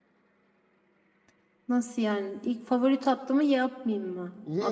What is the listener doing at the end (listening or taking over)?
taking over